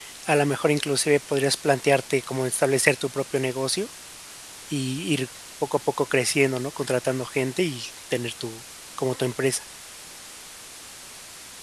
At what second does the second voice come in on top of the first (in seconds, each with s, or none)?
none